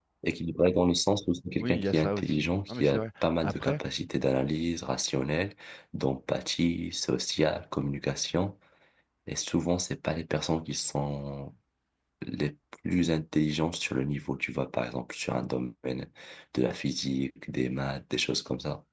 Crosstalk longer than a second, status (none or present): present